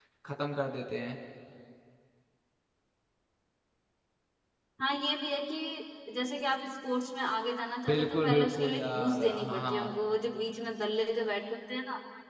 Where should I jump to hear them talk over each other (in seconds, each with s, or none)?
7.9 s